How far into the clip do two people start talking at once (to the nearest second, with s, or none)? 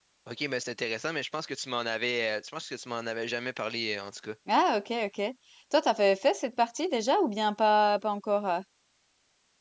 none